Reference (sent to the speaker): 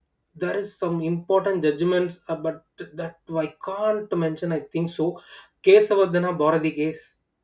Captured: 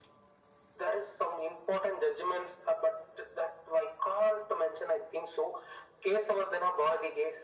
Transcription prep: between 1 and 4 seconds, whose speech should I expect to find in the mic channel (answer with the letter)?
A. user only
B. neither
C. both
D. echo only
D